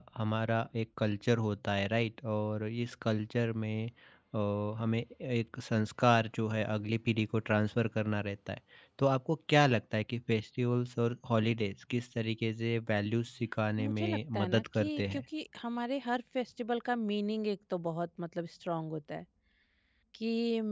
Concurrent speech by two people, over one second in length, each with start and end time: 13.8-15.2

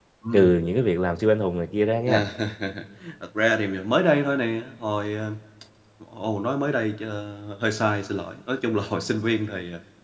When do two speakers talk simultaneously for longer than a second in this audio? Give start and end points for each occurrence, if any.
none

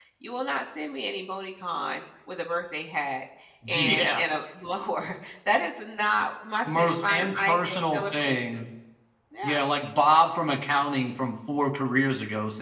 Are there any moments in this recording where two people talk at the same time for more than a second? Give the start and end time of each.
6.7-8.7

